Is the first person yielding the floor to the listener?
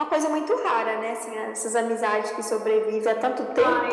Yes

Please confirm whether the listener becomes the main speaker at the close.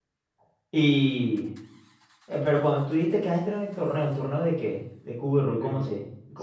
Yes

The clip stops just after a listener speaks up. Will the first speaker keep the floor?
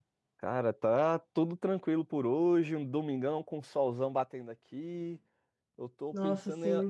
Yes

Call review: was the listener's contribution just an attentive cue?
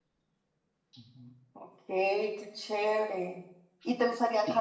Yes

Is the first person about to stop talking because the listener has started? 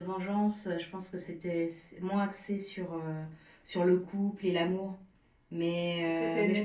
No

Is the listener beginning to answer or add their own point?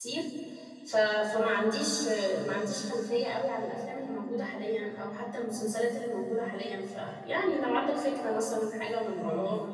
Yes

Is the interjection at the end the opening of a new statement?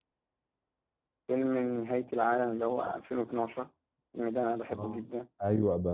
Yes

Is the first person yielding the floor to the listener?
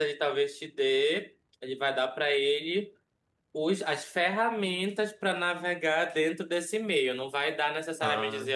No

